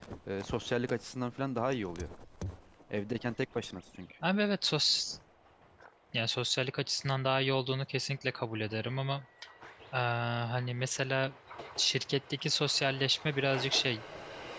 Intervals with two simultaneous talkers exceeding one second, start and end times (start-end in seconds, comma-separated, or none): none